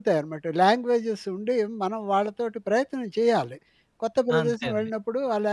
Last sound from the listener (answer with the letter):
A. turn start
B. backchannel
B